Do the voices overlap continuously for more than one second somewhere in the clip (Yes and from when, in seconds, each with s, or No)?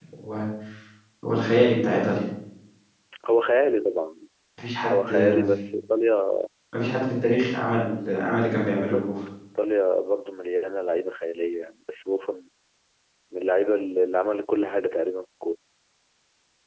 No